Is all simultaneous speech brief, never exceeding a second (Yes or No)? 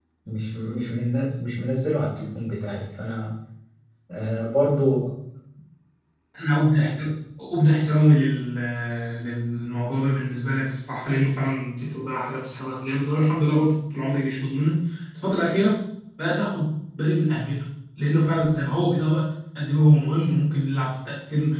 Yes